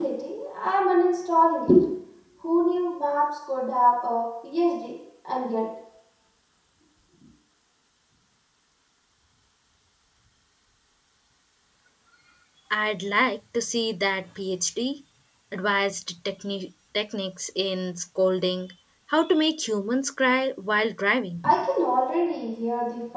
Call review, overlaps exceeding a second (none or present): none